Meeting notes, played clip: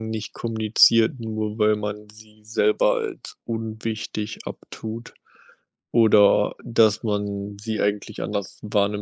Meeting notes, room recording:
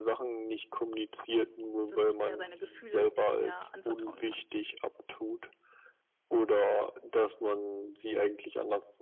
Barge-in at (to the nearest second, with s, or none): 2 s